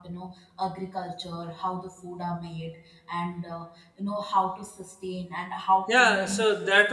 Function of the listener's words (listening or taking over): taking over